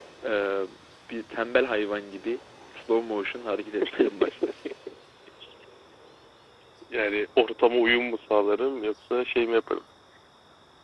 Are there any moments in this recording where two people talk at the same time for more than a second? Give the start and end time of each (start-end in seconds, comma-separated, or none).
none